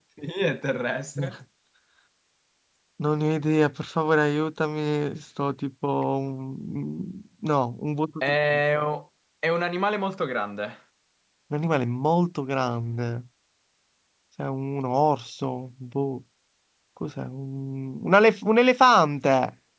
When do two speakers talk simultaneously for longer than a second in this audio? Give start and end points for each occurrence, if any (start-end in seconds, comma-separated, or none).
none